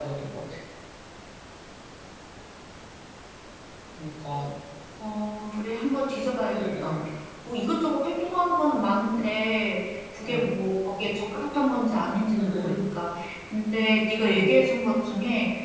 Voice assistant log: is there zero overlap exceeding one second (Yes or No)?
Yes